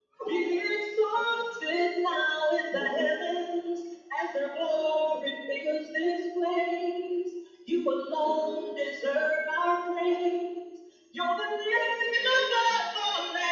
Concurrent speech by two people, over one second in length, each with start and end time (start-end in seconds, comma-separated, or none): none